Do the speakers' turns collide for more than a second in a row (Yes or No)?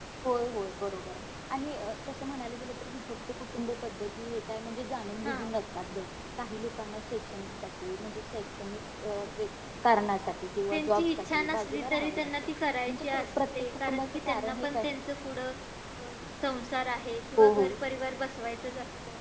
Yes